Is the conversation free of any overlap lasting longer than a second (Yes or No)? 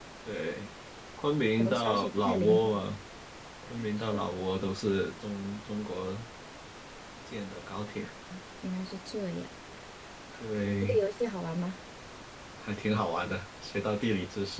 No